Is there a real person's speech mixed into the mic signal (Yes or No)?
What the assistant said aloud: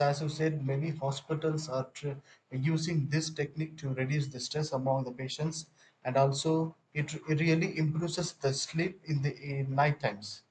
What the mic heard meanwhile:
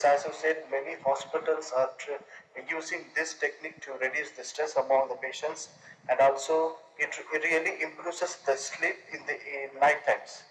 No